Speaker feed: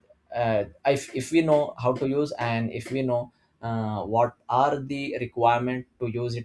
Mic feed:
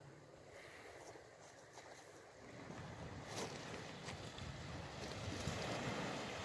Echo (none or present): none